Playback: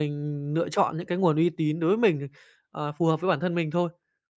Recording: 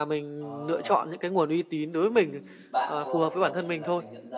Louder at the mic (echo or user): echo